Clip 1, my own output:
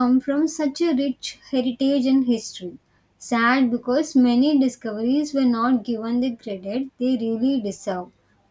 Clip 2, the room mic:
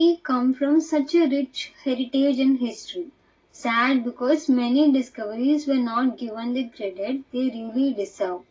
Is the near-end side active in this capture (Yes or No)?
No